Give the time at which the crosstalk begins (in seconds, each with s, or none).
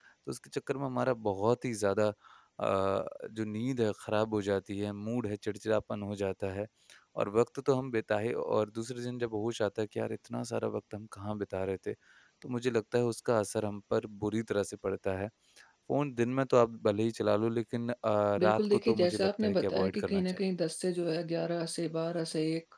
18.4 s